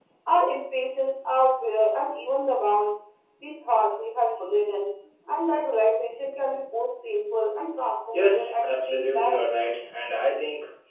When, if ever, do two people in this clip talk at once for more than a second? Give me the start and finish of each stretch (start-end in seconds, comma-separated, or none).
8.1-9.4